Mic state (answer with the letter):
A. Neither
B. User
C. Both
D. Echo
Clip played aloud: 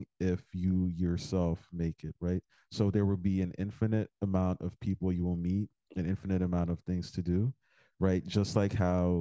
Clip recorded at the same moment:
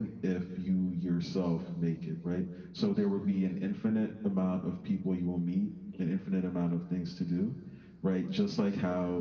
D